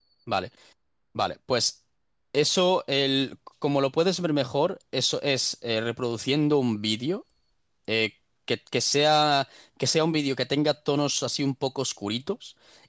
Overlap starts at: none

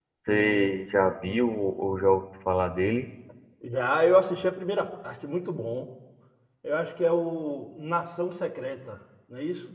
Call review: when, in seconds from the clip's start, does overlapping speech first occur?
none

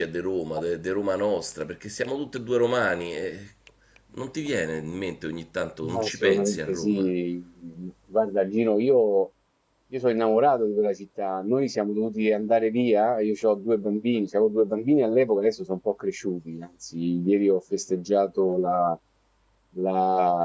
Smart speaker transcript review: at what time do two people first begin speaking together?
6 s

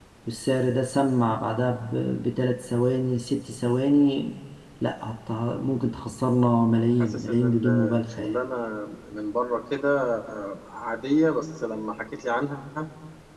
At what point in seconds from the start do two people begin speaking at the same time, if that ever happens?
7 s

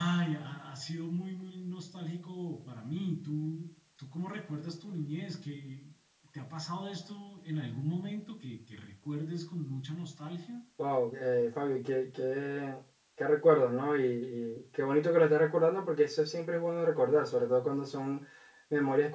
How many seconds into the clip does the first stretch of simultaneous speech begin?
none

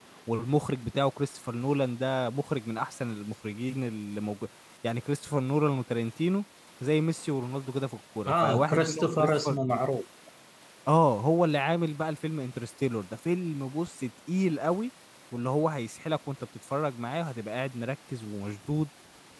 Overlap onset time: 8 s

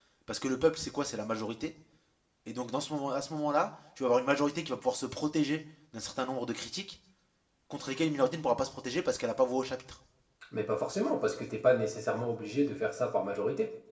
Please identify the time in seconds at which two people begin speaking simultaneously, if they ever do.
none

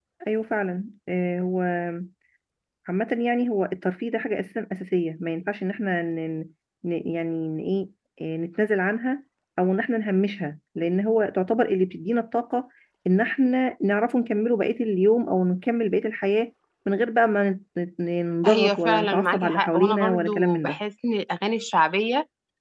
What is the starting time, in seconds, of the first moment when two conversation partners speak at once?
18 s

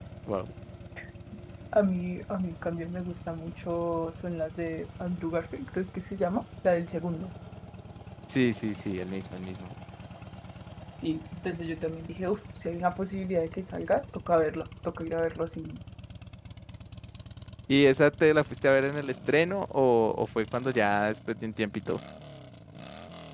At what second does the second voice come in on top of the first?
none

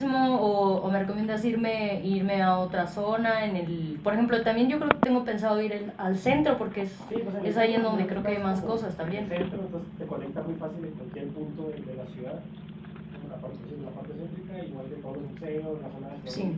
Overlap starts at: 7 s

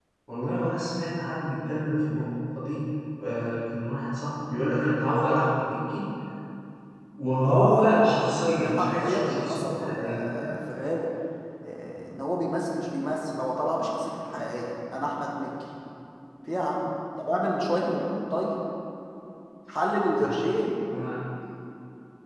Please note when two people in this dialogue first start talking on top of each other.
7 s

